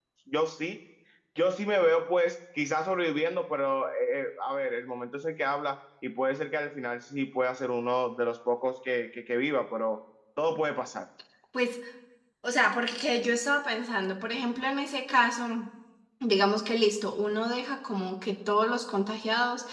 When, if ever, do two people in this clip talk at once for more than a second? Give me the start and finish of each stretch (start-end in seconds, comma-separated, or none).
none